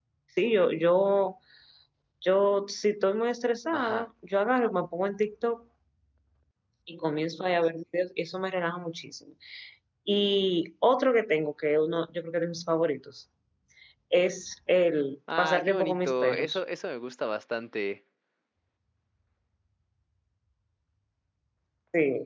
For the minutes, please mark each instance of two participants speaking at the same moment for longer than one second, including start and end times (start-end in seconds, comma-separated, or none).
15.4-16.6